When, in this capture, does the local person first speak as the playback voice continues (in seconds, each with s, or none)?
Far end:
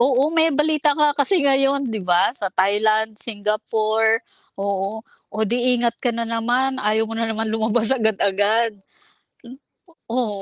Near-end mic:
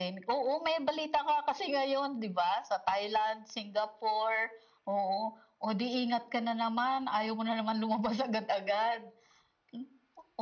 none